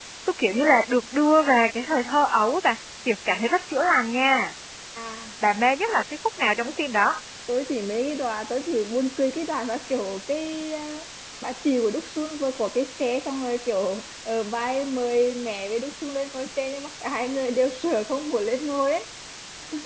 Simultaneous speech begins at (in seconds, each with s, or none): none